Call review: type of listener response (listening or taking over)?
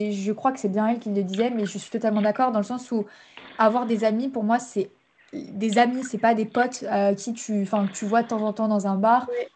listening